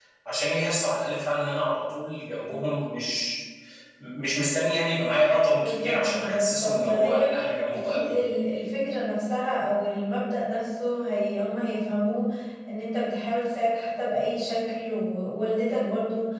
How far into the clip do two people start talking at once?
6 s

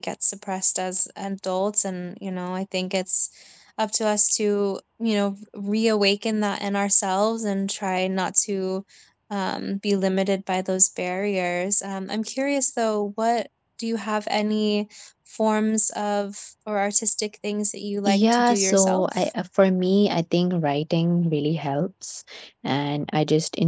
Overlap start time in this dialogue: 18 s

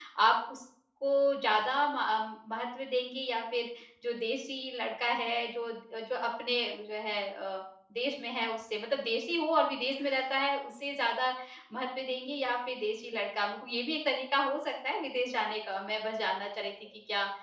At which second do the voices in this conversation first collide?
none

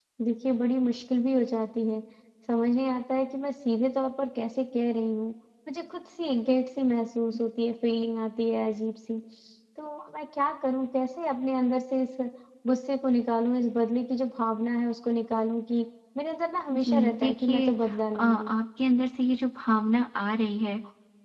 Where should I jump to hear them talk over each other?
17 s

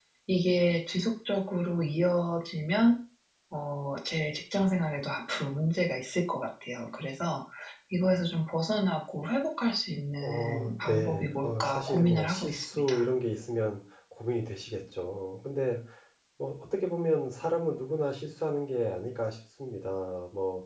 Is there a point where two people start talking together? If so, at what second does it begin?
10 s

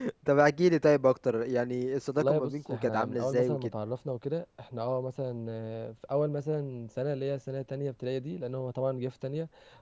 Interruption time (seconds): 2 s

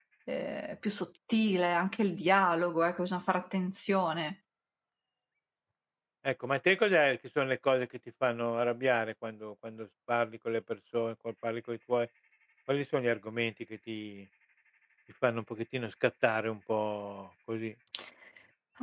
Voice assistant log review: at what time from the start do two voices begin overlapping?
none

